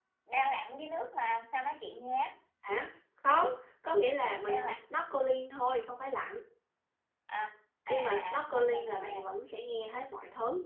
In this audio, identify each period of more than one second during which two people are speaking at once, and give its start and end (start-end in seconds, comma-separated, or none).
7.9-9.2